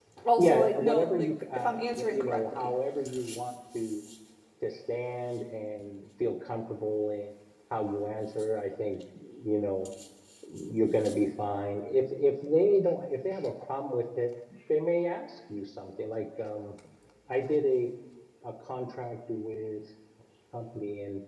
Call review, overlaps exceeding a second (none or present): present